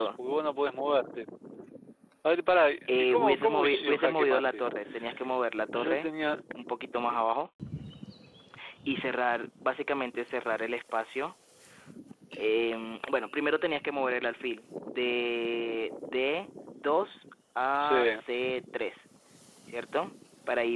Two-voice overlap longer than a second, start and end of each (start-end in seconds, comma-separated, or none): 3.0-4.7